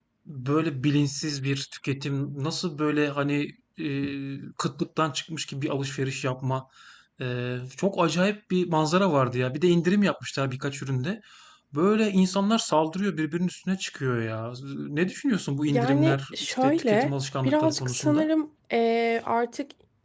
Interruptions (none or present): present